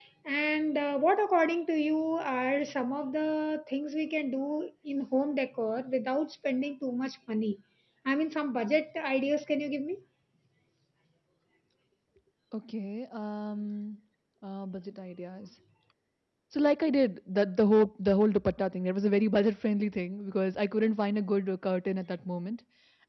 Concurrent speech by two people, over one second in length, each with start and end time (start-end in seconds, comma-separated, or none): none